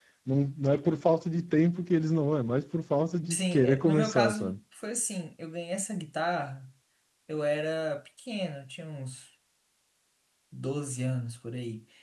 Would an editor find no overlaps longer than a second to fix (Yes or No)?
No